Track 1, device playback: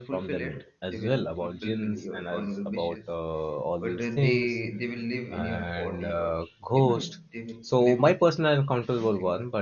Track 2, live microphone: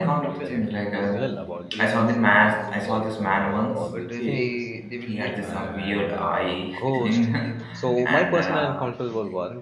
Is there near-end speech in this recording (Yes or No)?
Yes